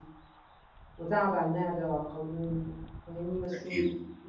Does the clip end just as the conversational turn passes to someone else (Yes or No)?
No